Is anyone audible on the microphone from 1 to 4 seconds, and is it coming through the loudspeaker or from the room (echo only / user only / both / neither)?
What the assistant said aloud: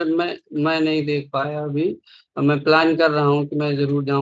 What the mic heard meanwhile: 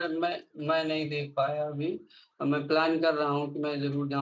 echo only